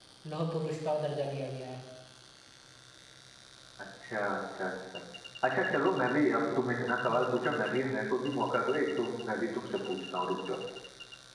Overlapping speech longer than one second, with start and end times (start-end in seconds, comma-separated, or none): none